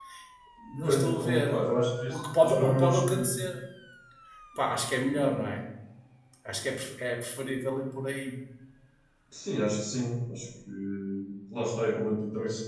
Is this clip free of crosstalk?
No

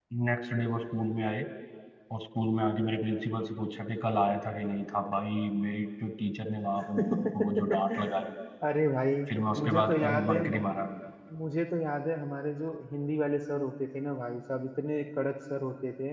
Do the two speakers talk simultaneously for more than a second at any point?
Yes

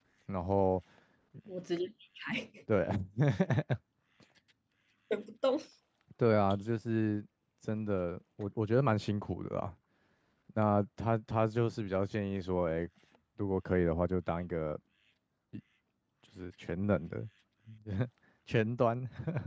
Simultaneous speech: No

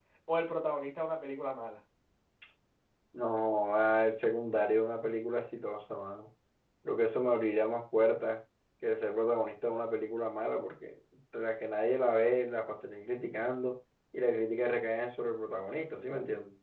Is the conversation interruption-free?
Yes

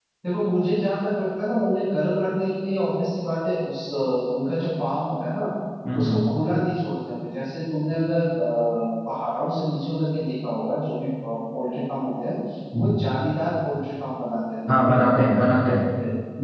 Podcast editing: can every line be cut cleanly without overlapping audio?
No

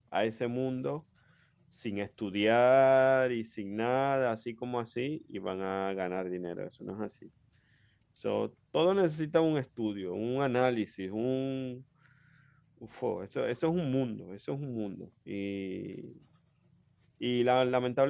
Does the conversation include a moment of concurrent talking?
No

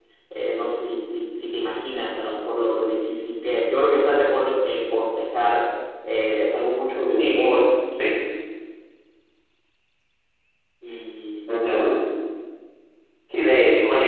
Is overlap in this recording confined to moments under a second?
Yes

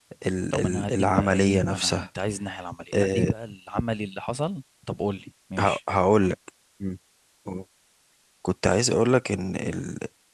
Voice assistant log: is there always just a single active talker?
No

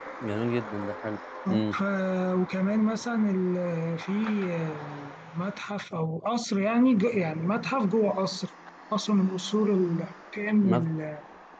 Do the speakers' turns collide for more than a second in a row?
No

